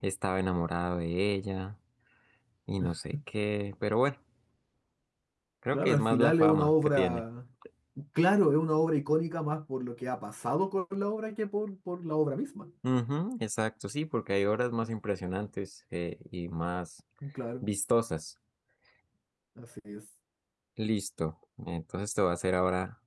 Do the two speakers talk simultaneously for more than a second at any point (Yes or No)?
Yes